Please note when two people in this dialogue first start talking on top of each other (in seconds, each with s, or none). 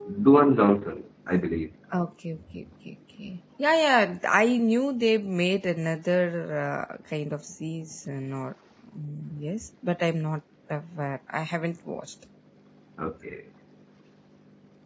none